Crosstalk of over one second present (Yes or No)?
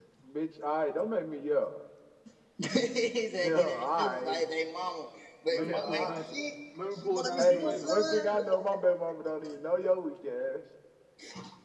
Yes